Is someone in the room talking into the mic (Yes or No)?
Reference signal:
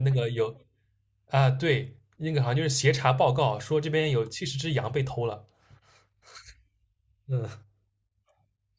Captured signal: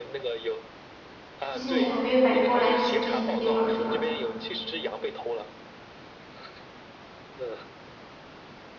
Yes